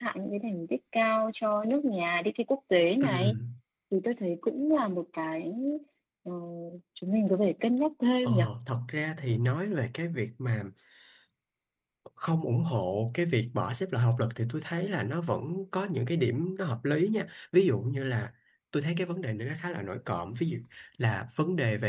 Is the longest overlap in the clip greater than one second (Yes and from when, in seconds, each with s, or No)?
No